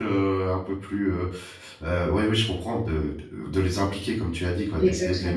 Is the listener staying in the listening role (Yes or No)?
Yes